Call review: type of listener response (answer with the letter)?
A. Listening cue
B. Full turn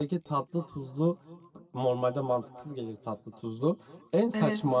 A